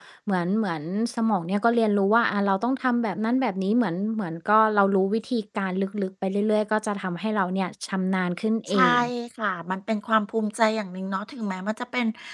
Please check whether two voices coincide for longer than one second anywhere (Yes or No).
No